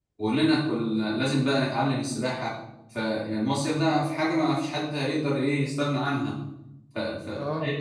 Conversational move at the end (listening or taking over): listening